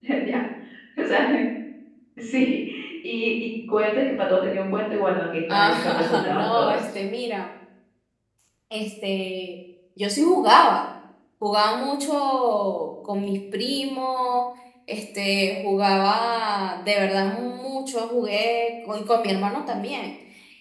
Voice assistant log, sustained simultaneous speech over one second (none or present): present